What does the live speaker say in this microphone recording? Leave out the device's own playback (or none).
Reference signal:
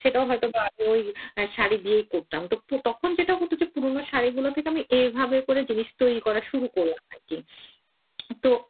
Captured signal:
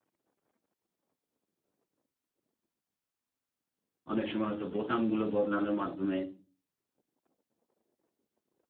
অনেক সময় হয়তো বোতামগুলো বদলানোর মাধ্যমে,